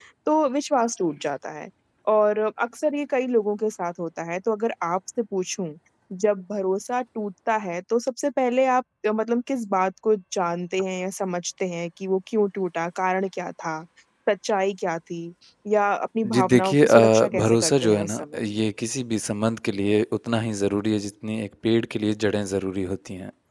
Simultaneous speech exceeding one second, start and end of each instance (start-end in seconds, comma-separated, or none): 16.2-18.4